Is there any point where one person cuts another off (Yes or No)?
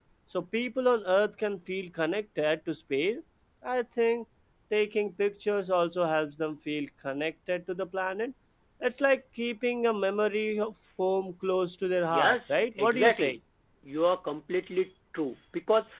Yes